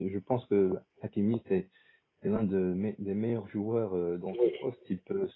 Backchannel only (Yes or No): Yes